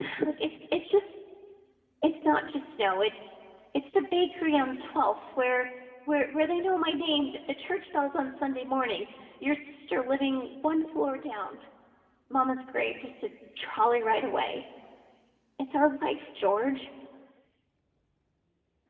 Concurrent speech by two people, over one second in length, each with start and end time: none

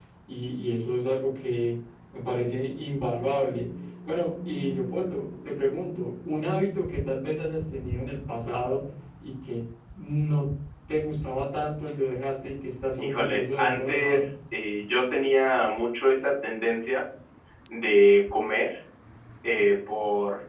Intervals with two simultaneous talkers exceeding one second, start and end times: 13.0-14.3

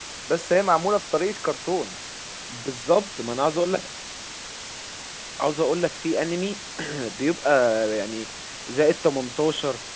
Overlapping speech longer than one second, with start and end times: none

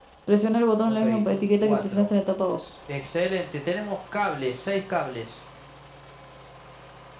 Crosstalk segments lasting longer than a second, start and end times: 0.9-2.1

